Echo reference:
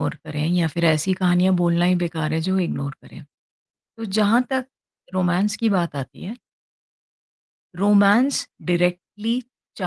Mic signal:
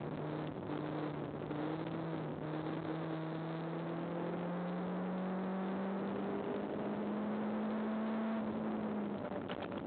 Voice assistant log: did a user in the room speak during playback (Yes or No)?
No